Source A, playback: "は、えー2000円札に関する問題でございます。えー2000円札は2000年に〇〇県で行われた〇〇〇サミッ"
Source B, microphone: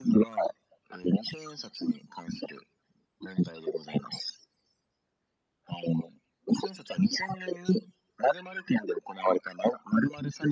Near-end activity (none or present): none